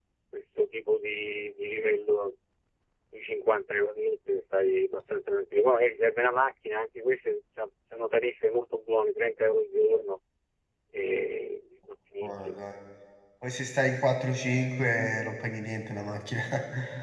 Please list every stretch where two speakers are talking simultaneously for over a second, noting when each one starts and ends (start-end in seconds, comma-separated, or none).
none